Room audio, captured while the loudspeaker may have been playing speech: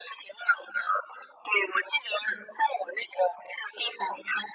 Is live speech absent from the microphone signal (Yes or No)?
Yes